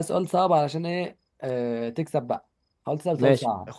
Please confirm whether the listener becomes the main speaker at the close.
Yes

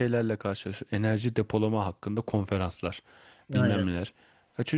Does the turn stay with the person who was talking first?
Yes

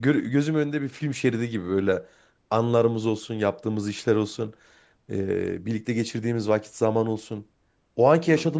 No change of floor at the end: Yes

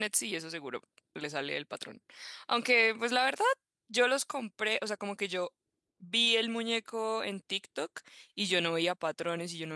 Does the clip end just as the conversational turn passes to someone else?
No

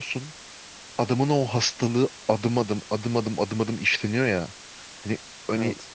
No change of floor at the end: Yes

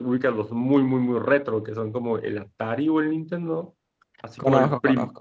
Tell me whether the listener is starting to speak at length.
No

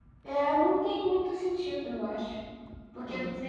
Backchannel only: Yes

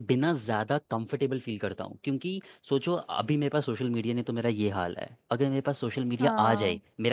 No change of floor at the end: Yes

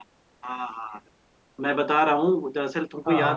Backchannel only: Yes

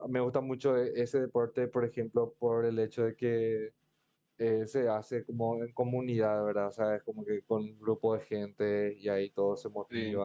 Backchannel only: Yes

